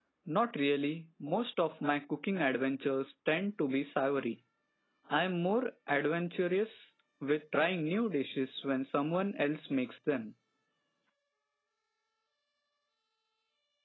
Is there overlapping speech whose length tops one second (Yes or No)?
No